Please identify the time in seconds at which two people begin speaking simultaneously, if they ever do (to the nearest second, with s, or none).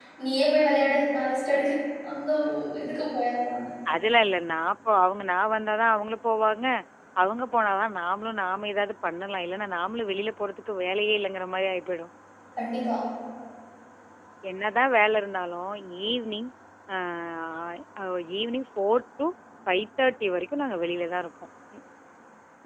none